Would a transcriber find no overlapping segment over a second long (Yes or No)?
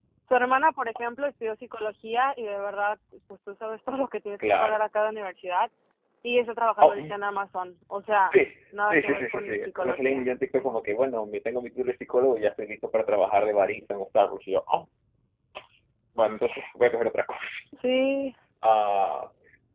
No